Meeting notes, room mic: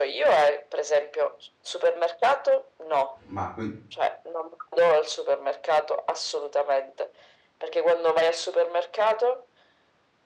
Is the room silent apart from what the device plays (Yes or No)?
No